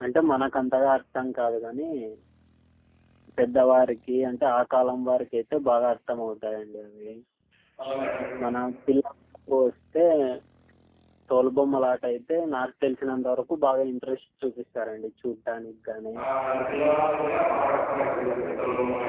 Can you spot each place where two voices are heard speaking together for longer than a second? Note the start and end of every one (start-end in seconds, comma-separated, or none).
none